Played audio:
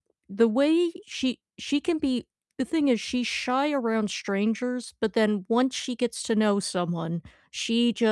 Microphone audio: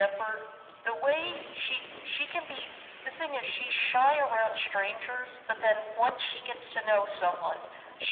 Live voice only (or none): none